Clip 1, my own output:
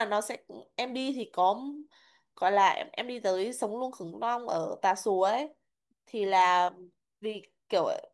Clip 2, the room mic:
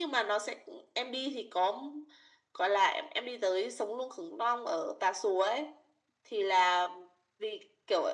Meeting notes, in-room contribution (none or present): none